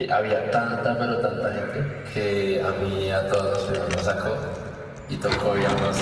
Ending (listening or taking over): listening